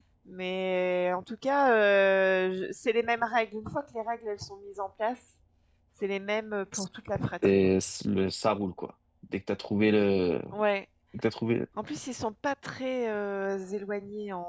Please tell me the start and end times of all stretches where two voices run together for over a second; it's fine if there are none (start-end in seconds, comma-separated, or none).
none